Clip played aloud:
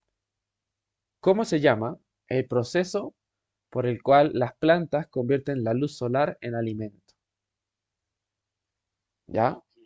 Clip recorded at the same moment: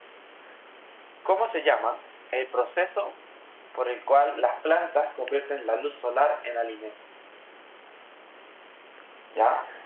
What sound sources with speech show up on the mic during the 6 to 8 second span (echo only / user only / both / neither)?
echo only